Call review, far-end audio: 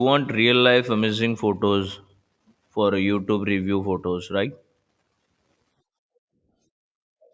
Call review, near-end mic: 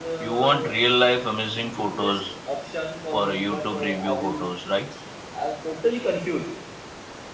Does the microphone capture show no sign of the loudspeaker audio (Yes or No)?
No